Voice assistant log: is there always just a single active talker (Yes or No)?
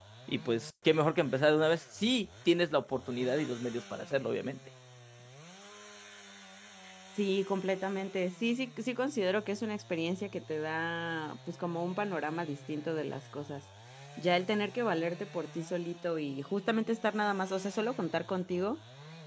Yes